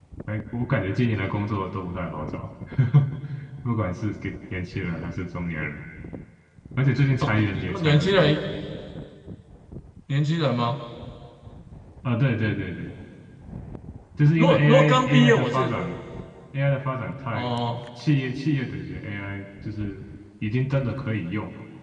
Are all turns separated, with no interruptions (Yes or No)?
No